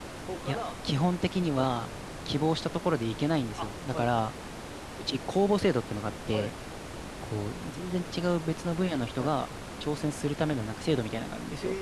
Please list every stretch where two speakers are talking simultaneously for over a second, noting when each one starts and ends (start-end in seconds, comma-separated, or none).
none